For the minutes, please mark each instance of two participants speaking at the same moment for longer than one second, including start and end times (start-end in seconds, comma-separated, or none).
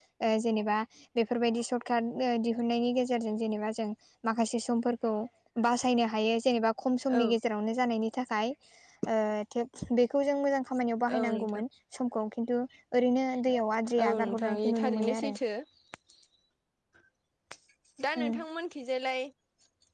14.0-15.3